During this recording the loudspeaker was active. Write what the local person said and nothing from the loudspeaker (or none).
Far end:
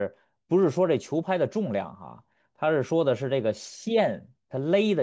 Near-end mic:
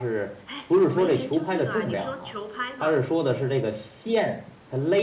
哎，我没研究这个啊，你说球拍嘛？